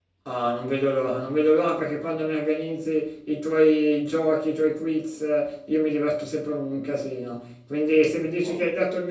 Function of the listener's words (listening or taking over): listening